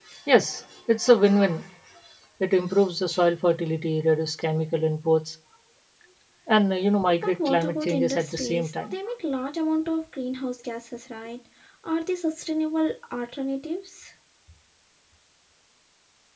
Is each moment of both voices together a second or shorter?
No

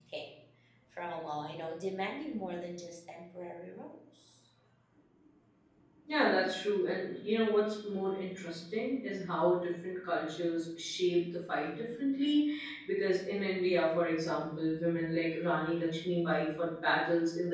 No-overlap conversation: Yes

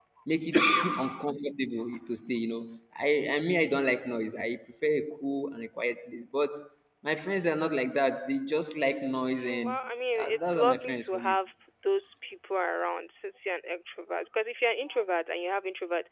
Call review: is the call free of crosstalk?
No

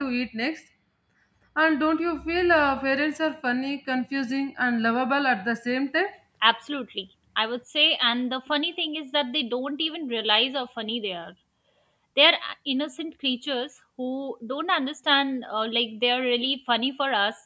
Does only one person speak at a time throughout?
Yes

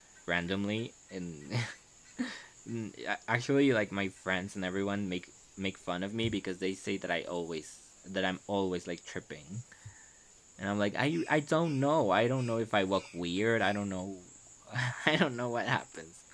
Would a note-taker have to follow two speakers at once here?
No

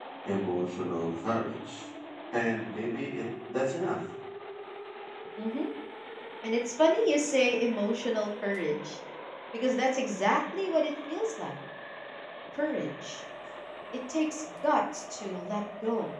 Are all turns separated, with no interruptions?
Yes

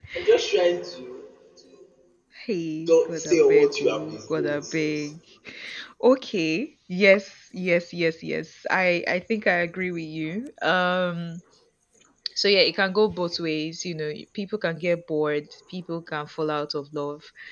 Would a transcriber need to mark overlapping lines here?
Yes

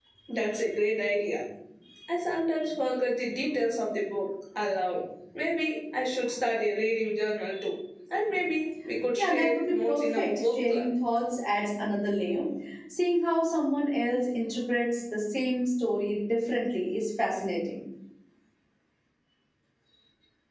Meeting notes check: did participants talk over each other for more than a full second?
Yes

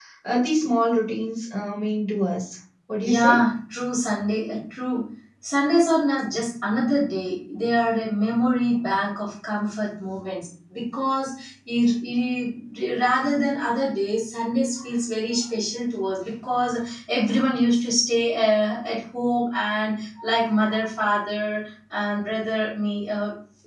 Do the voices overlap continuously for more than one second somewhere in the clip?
No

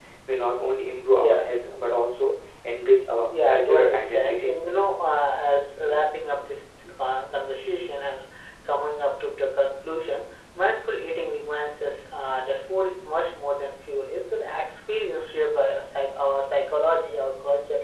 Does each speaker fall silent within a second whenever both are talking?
No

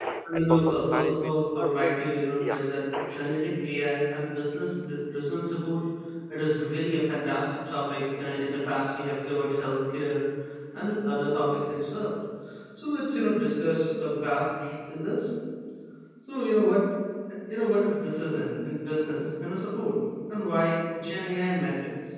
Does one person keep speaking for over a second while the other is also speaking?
Yes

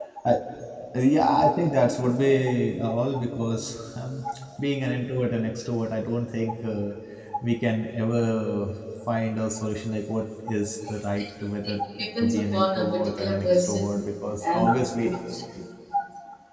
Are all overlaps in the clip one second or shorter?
No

